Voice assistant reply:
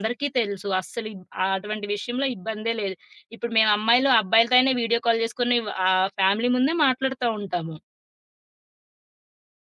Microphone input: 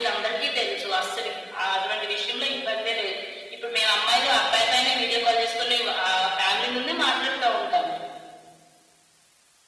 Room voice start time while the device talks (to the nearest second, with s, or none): none